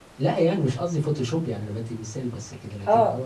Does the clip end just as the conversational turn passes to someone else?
Yes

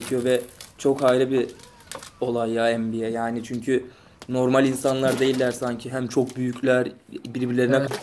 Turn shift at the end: Yes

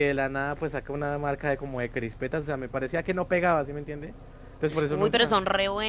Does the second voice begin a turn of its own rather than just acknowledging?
Yes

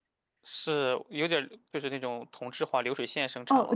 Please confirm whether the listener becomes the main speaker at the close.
Yes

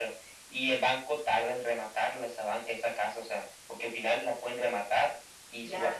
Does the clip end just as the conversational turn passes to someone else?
No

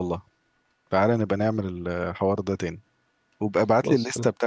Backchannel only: Yes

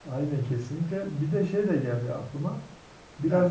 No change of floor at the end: Yes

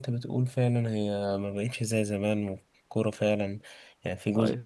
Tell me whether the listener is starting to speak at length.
No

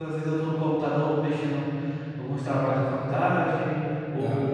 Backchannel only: Yes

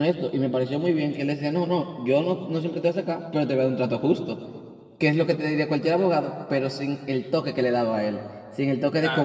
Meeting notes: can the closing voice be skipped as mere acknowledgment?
Yes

